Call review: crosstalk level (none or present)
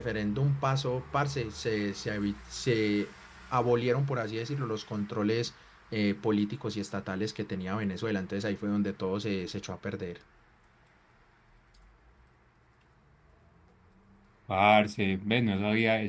none